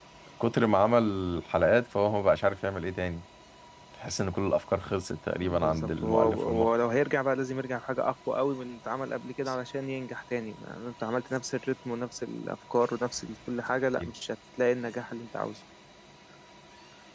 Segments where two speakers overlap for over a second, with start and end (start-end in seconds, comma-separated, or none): 5.4-6.7